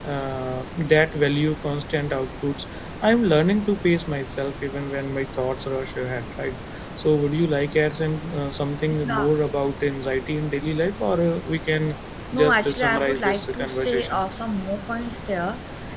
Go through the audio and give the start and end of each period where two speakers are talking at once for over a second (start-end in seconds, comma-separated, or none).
12.3-14.2